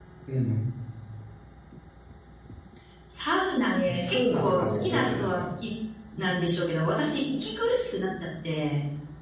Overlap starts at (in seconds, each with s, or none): 3.9 s